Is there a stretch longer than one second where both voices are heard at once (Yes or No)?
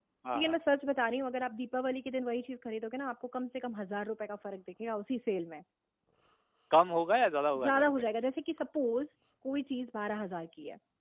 No